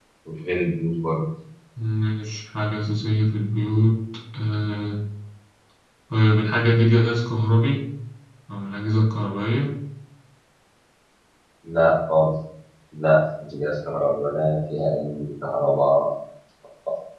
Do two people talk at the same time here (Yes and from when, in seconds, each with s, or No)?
No